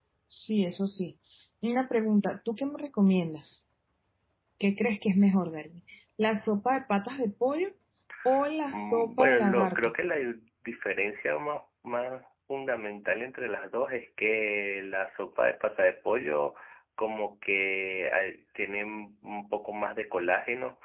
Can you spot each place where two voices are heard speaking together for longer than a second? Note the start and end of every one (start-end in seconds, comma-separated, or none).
8.7-9.9